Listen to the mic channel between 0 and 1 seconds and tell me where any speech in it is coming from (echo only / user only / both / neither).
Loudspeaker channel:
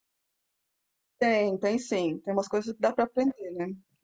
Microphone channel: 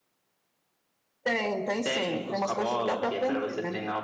neither